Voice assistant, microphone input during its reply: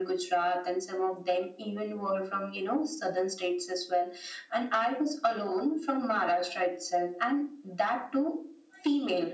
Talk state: echo only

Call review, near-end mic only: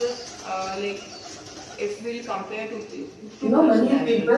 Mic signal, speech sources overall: both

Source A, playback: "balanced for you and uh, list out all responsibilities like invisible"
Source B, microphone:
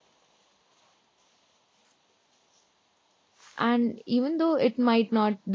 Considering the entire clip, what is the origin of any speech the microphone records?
user only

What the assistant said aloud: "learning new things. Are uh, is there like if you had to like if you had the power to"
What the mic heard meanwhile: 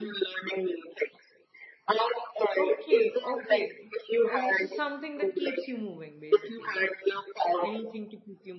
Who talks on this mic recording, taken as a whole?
both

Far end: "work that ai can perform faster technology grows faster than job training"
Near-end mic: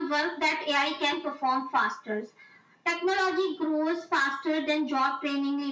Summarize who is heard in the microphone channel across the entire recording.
echo only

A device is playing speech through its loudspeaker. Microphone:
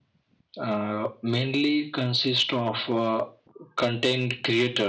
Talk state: echo only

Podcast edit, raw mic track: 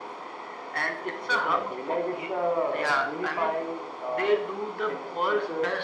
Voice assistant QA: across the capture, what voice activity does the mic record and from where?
echo only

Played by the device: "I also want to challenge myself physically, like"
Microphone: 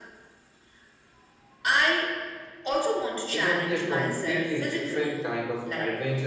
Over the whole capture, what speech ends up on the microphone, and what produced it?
both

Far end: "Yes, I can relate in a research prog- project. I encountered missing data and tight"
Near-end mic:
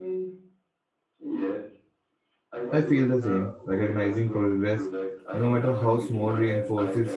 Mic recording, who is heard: both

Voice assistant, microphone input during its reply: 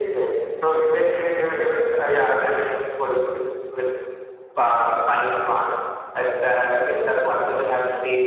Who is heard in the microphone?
echo only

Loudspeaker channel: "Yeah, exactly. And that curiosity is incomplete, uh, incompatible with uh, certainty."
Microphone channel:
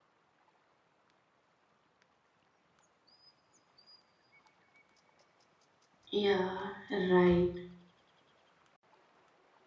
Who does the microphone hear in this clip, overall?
user only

